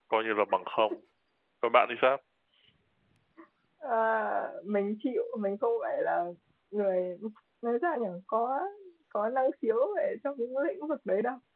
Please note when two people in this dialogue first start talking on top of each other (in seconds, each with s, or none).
none